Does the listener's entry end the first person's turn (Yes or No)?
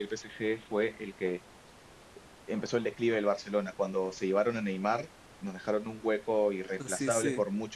No